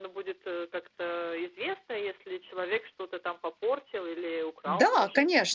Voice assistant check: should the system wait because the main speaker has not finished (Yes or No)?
No